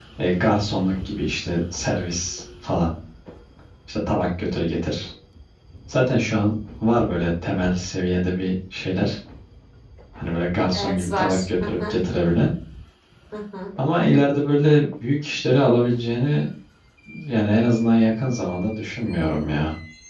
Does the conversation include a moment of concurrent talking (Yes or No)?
Yes